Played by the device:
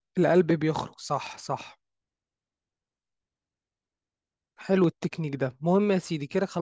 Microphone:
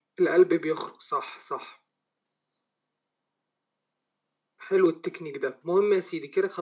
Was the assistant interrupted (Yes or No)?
No